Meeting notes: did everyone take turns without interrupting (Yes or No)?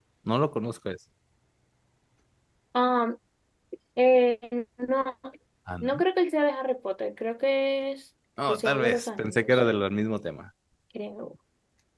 No